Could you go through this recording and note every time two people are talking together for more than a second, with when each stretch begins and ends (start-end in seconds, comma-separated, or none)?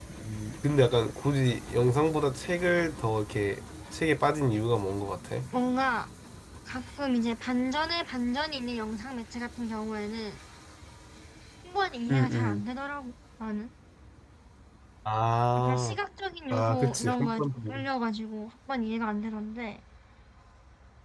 16.5-17.9